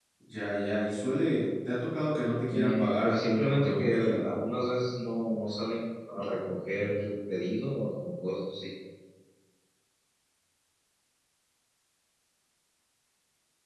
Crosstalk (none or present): present